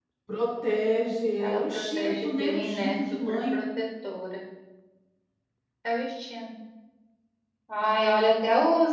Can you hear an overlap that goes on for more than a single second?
Yes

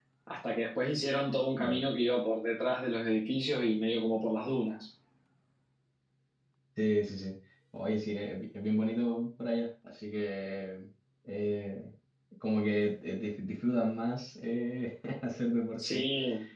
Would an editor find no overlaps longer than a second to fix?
Yes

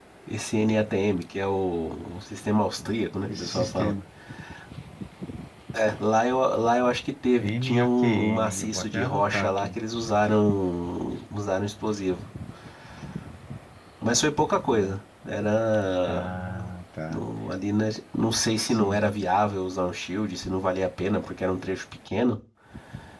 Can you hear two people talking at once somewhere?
Yes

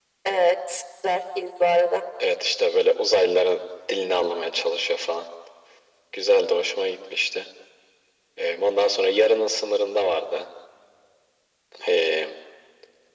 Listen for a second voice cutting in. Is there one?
No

